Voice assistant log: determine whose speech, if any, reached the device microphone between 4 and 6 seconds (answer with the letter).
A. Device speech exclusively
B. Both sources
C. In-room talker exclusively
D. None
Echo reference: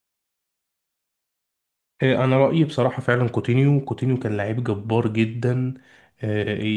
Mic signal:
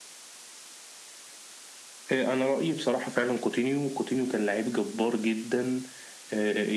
A